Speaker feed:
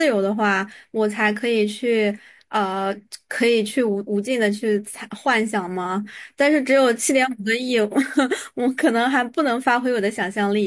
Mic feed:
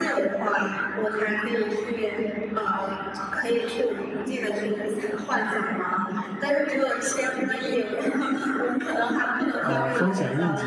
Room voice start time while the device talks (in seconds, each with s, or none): 9.6 s